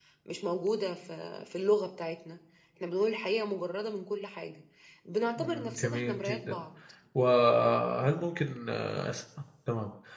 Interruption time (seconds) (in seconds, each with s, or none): 5.4 s